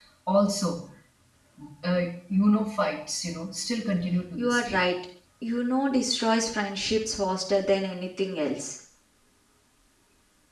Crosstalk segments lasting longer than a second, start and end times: none

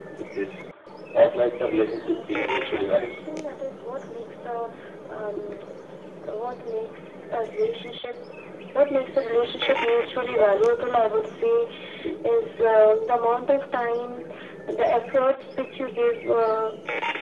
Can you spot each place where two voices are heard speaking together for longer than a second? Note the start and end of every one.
1.8-3.1

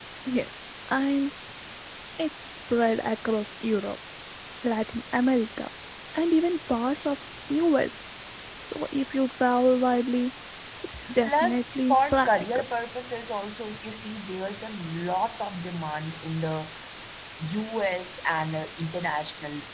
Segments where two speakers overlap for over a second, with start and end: 11.2-12.6

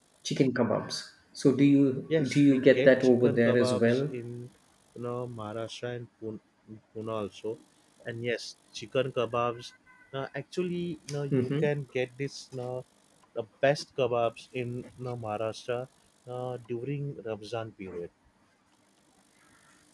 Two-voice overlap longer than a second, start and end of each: 2.3-4.1

